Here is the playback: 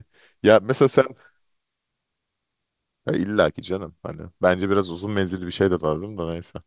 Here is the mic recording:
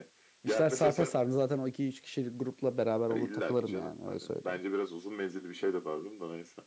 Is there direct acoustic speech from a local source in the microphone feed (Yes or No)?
Yes